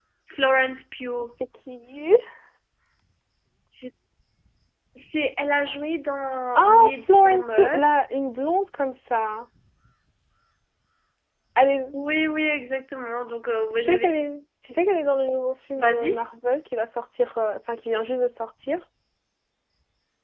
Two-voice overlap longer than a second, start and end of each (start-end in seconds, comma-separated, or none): 6.6-7.8